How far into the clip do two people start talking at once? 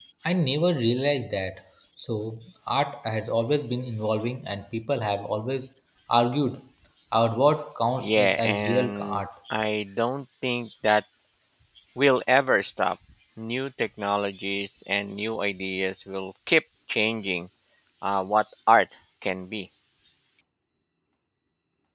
8.0 s

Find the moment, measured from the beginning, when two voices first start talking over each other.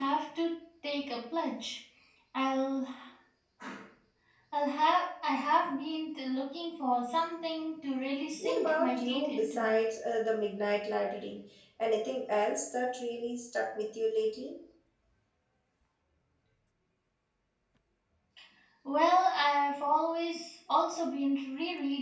8.4 s

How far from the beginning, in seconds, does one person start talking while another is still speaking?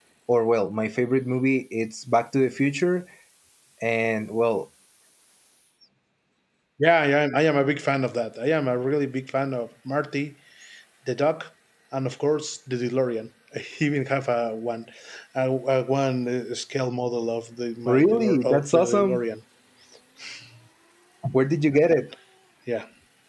17.8 s

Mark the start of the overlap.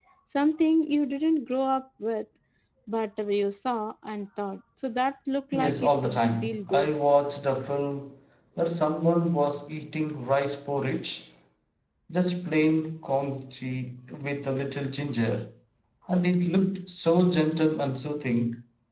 5.5 s

